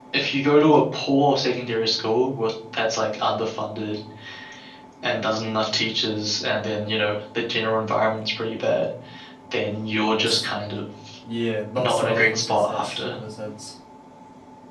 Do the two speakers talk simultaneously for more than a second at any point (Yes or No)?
Yes